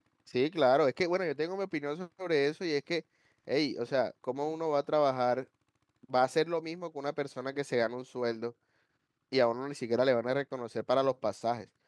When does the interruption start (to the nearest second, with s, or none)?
none